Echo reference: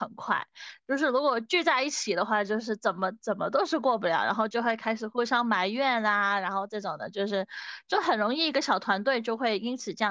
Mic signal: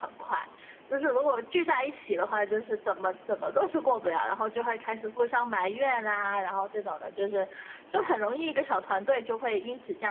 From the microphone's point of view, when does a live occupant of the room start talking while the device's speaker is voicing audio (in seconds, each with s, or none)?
none